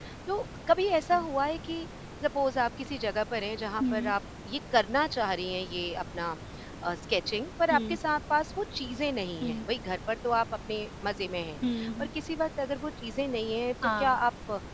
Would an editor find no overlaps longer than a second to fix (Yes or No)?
Yes